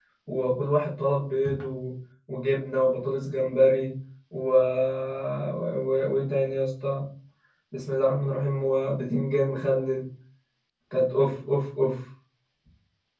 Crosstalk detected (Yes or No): No